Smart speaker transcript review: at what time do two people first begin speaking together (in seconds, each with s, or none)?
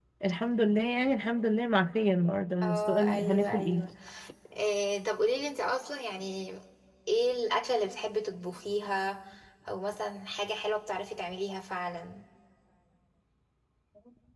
2.6 s